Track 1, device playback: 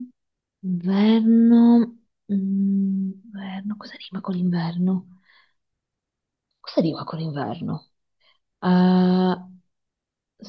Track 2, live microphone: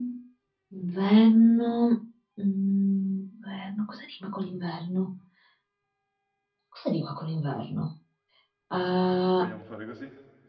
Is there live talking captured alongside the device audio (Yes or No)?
Yes